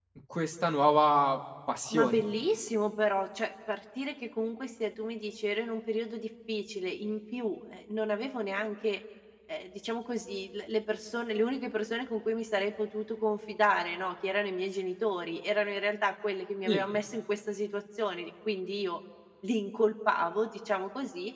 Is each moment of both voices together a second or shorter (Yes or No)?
Yes